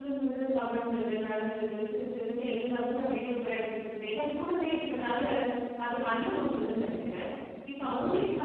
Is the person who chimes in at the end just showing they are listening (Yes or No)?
Yes